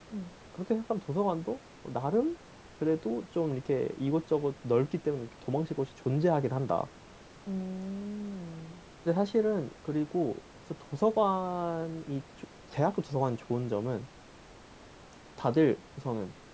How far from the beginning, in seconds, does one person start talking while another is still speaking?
none

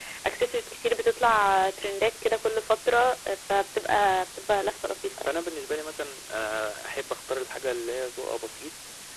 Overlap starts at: none

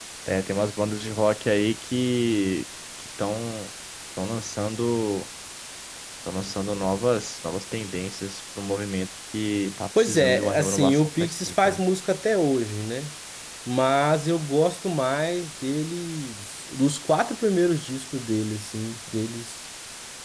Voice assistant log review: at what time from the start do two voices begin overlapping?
10 s

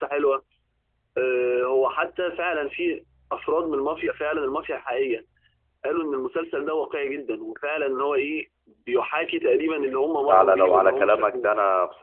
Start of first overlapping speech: 10 s

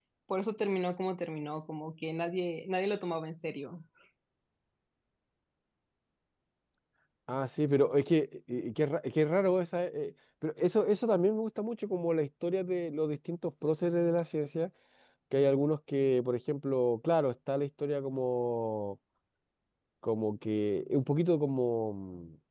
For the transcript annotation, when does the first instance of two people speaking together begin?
none

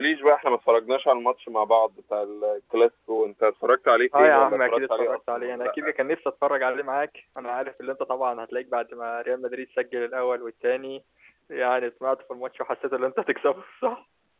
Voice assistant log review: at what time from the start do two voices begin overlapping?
4 s

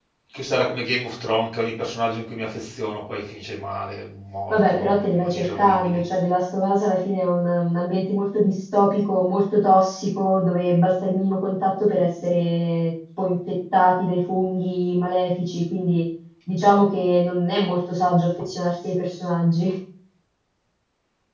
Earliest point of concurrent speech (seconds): 5 s

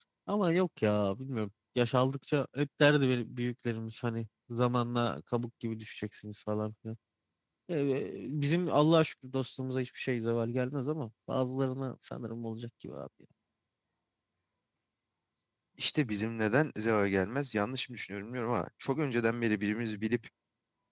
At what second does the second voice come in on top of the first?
none

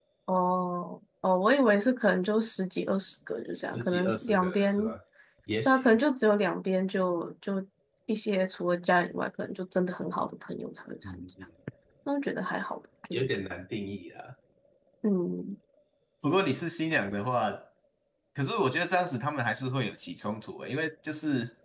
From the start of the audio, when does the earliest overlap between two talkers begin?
4 s

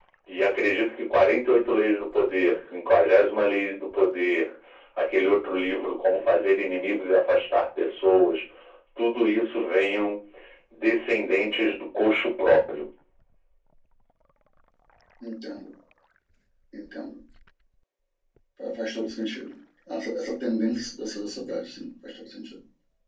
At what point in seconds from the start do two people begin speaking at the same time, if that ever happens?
none

